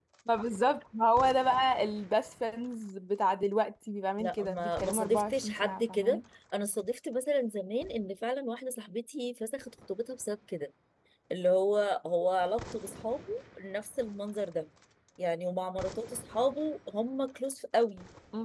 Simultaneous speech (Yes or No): Yes